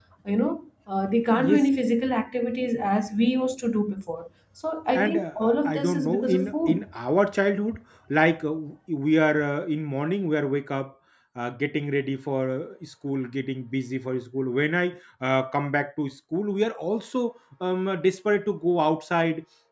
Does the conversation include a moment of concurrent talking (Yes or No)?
Yes